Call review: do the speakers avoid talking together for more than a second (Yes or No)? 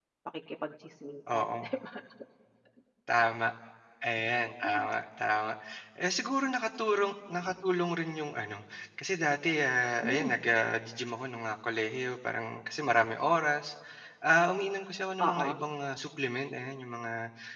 Yes